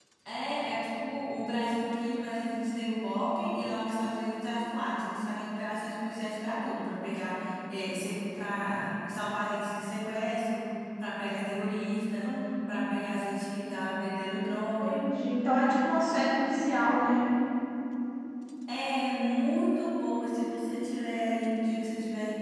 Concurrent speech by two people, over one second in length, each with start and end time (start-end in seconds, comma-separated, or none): none